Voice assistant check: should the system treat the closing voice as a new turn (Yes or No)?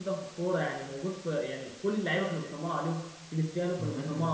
No